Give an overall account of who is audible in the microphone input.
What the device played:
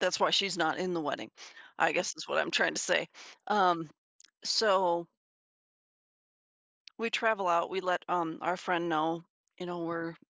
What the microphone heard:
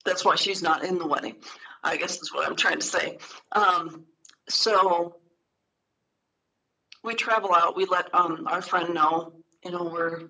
echo only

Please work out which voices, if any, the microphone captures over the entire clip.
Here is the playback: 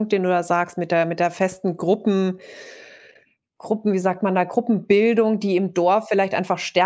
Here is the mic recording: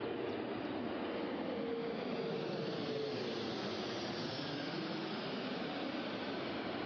neither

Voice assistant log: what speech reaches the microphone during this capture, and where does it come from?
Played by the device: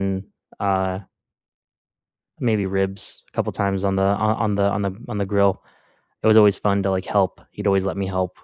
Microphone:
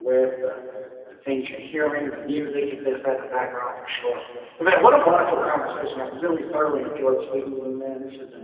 user only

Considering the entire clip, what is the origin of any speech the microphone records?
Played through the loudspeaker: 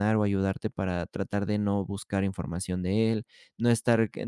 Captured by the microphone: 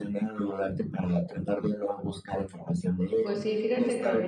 both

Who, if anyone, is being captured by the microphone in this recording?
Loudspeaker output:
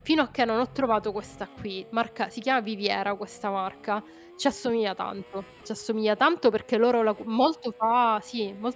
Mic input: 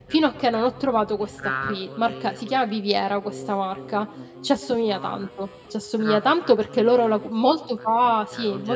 both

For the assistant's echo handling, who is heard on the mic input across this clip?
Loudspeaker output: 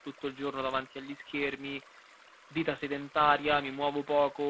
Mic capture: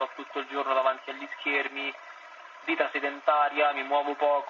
echo only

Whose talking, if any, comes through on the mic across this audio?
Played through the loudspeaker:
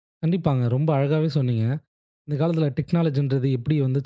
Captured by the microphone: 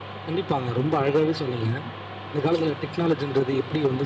echo only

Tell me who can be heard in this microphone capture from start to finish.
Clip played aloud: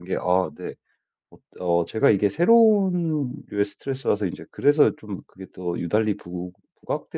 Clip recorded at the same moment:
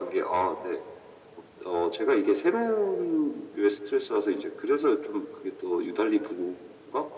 echo only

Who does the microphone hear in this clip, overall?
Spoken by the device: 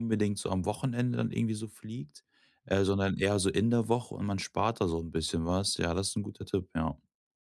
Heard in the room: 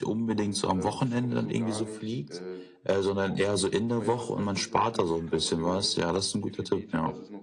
both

